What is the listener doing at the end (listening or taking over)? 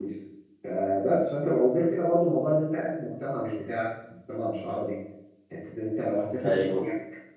listening